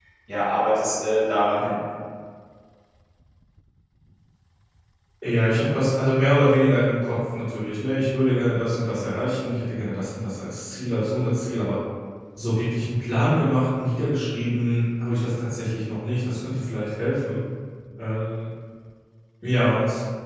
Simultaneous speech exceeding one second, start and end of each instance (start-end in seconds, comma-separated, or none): none